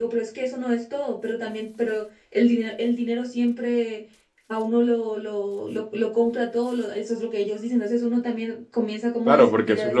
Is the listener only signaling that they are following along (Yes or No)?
No